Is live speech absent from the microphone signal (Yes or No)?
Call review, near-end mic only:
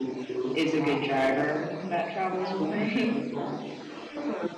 No